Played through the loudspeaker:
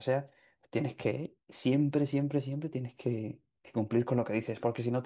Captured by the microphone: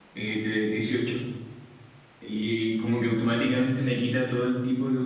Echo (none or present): none